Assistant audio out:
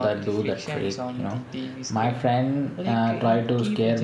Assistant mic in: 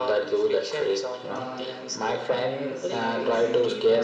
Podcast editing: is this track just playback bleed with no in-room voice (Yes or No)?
No